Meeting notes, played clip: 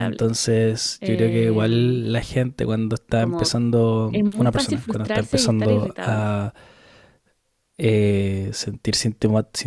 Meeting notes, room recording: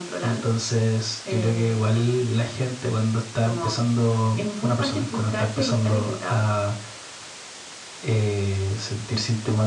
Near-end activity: none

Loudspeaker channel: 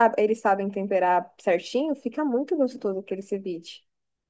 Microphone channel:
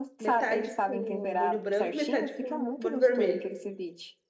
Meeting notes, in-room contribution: present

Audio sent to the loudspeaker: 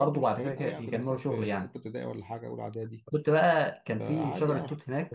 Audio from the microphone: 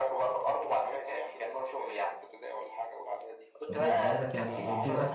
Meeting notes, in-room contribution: present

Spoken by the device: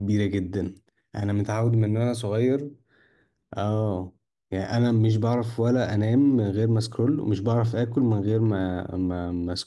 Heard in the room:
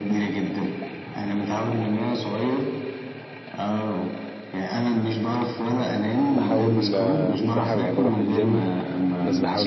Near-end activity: present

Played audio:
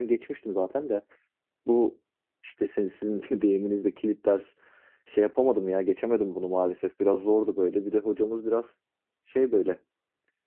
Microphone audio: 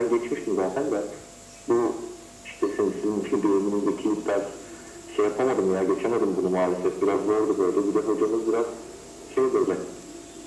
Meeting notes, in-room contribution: none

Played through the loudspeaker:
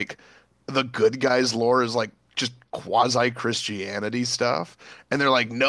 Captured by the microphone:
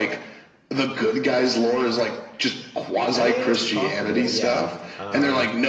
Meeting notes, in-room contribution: present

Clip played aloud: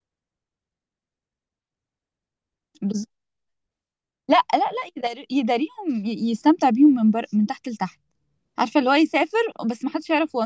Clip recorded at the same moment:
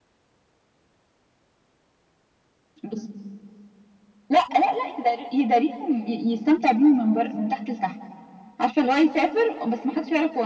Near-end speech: none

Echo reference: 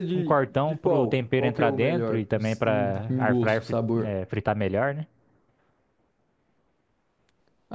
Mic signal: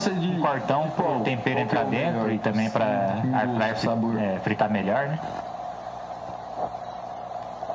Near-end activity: none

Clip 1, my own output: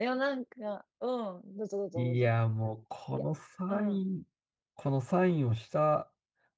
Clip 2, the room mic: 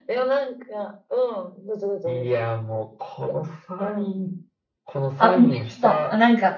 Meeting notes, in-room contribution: present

